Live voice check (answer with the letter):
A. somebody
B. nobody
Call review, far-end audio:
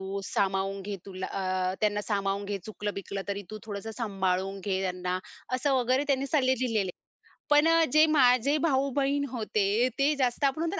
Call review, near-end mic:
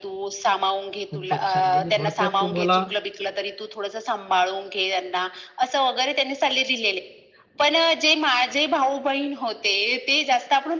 A